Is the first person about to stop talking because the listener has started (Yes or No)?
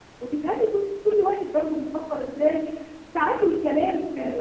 No